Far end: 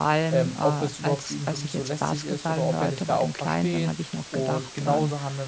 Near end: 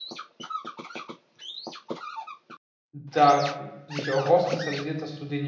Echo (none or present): none